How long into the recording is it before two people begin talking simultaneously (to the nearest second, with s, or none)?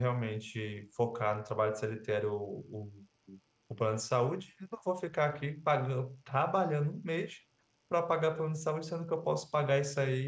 none